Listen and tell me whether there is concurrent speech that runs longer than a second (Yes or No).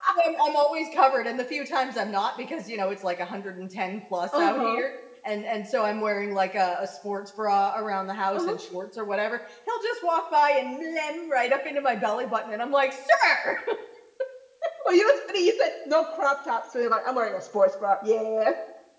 No